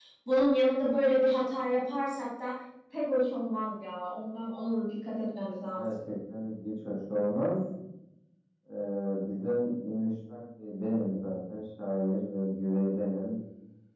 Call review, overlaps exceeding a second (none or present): none